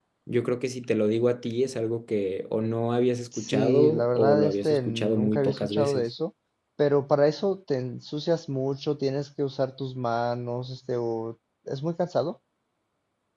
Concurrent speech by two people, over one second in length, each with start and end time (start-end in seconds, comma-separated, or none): 3.4-6.0